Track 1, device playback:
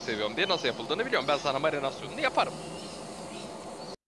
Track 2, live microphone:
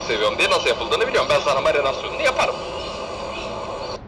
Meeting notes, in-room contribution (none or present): none